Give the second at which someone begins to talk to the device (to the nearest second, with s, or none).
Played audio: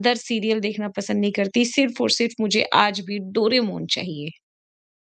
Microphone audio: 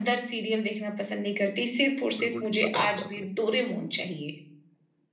2 s